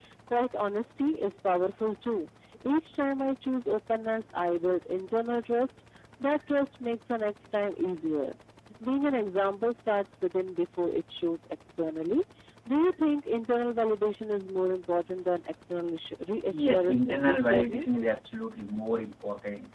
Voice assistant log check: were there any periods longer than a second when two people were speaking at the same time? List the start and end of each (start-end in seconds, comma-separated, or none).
16.4-17.9